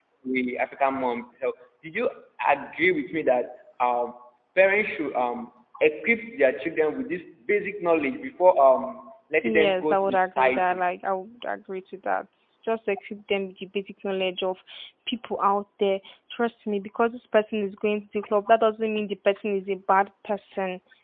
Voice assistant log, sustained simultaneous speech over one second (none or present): present